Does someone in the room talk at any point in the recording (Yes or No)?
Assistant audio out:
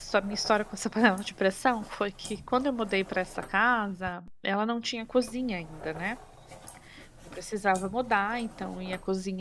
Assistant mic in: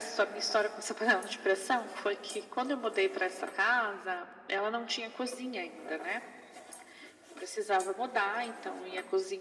No